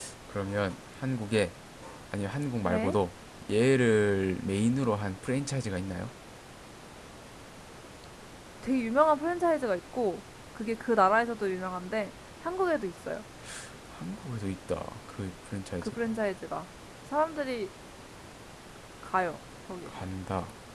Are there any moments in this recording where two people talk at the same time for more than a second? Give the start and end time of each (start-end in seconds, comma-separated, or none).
none